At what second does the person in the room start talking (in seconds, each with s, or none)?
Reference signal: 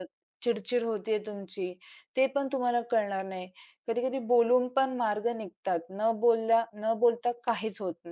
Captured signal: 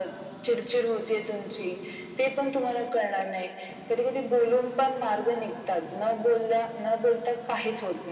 none